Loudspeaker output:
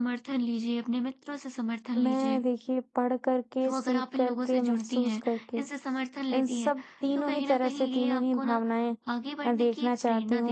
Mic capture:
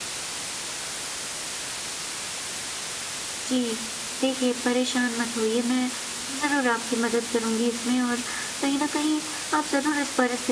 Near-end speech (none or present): present